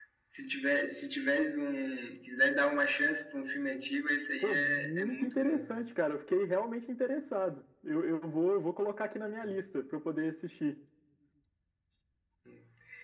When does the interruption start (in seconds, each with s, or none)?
4.4 s